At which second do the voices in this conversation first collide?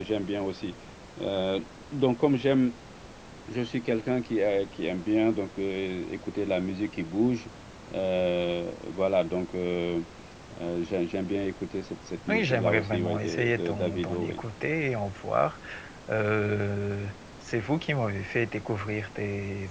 12.3 s

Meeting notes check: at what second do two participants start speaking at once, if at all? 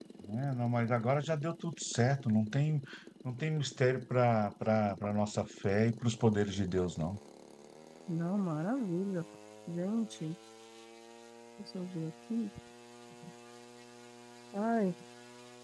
none

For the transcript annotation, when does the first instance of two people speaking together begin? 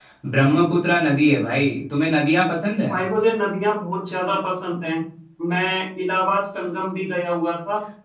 none

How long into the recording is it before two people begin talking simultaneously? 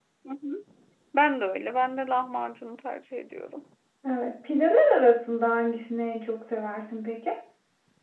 none

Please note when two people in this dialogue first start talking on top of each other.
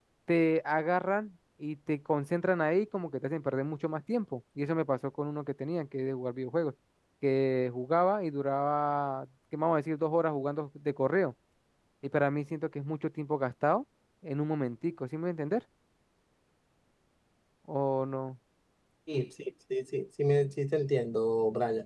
none

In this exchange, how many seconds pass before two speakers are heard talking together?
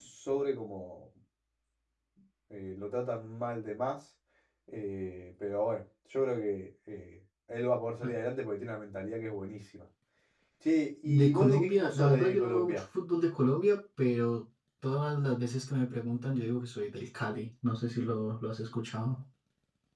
11.1 s

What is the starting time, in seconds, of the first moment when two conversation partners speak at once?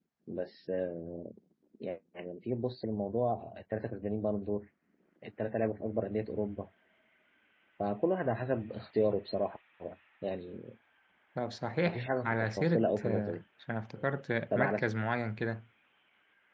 11.8 s

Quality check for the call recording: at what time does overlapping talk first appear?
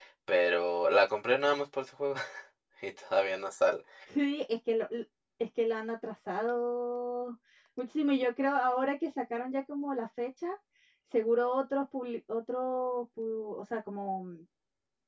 none

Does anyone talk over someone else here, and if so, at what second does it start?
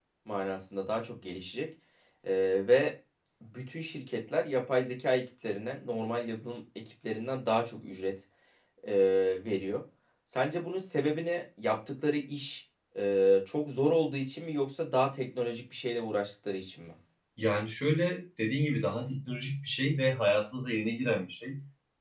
none

